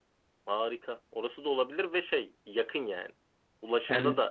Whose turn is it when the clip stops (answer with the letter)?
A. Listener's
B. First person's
B